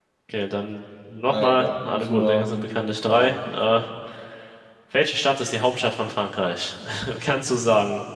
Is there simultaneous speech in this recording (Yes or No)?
Yes